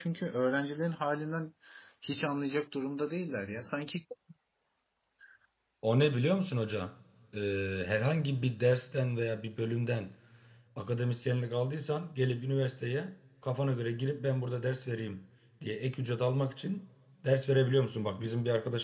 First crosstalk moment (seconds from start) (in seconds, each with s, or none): none